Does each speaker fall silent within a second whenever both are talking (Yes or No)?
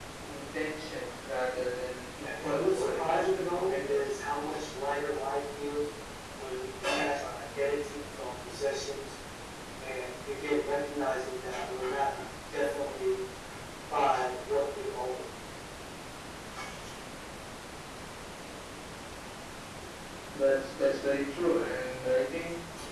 No